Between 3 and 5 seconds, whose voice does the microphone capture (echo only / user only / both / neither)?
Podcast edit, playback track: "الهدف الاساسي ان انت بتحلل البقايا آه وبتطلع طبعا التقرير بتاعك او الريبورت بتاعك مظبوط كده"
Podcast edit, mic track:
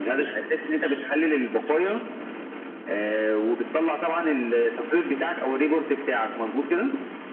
echo only